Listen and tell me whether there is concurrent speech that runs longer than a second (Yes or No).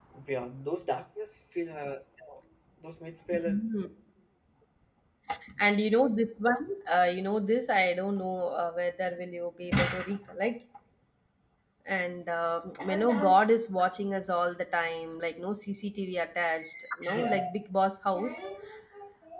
No